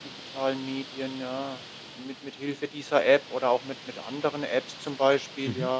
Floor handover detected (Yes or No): No